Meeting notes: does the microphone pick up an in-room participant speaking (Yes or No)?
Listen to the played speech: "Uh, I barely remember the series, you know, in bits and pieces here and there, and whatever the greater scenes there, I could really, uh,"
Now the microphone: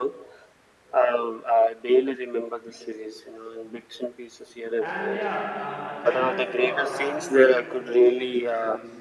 Yes